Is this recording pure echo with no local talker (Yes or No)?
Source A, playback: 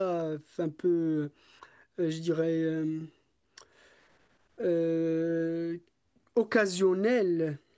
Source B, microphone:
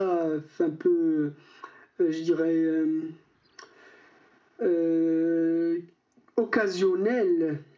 Yes